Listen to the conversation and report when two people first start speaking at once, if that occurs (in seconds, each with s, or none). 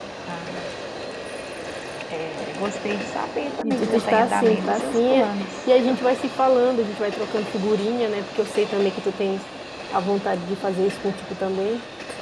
3.6 s